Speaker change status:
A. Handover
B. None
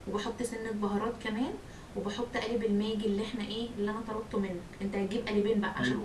B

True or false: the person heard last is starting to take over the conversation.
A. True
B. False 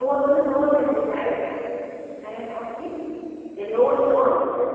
B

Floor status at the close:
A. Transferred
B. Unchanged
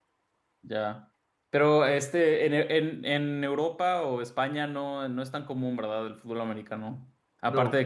B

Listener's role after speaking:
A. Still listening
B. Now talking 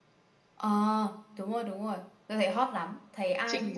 B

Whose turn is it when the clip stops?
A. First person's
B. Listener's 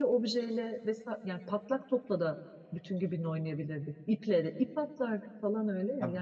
B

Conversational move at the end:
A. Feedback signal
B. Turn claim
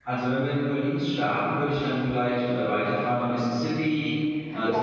B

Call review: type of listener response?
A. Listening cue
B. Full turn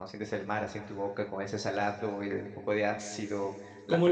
B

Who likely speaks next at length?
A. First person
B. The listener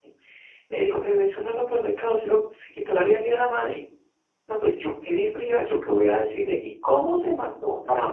B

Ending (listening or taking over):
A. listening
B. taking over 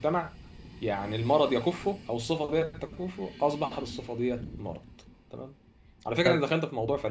A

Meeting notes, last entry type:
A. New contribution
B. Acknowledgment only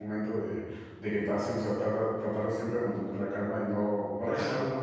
B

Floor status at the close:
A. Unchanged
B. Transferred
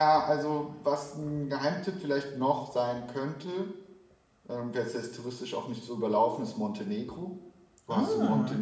A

